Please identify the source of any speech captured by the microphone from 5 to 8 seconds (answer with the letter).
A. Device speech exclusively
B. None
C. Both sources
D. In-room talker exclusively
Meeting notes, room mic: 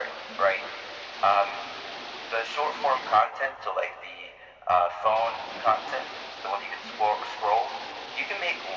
A